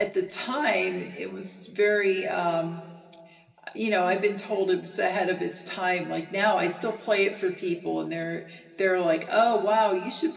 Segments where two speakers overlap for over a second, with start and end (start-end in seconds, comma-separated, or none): none